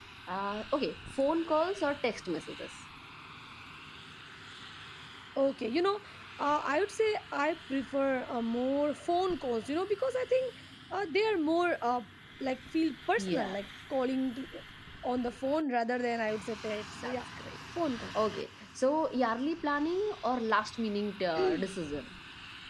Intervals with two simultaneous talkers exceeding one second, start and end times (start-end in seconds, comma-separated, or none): none